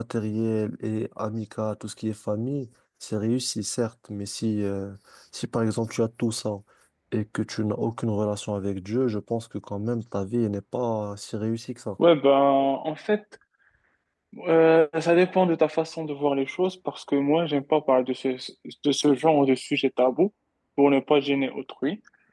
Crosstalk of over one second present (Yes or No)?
No